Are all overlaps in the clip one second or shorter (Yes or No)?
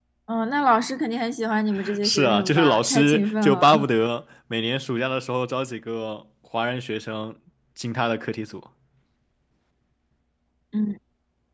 No